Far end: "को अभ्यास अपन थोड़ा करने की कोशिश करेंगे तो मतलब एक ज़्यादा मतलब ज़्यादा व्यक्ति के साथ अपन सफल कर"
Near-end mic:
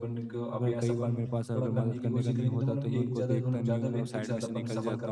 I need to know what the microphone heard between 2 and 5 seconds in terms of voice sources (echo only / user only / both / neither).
both